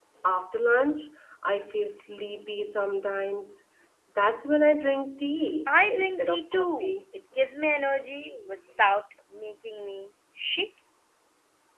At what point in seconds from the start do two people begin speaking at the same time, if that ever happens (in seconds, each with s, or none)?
5.7 s